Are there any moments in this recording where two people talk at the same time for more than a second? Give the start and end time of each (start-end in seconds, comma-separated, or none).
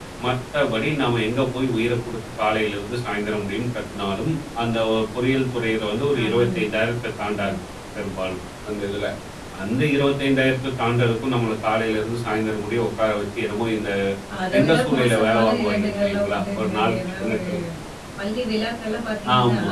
14.5-17.4